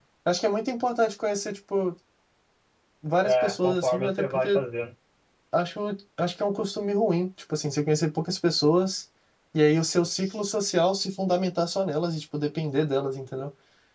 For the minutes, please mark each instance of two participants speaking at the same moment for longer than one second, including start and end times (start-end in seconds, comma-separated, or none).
3.2-4.6